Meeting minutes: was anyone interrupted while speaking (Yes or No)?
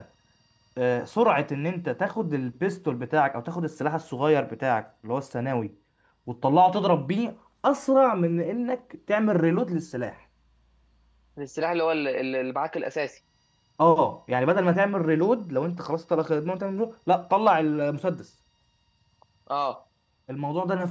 No